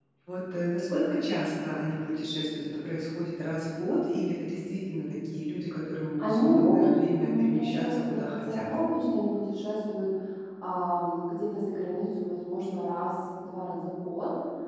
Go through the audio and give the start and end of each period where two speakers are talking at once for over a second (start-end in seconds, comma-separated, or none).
6.2-8.7